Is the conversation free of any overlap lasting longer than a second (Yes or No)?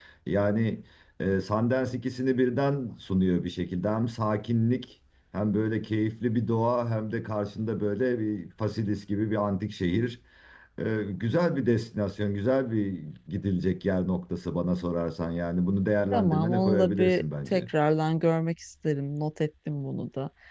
No